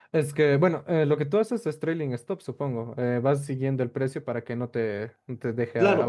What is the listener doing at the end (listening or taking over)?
taking over